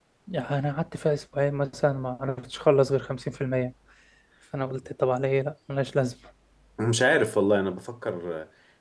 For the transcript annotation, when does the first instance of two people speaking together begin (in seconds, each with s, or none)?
none